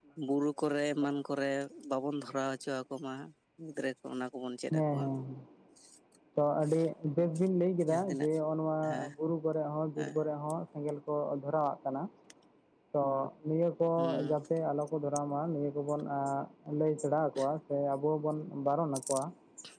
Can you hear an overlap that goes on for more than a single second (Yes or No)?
No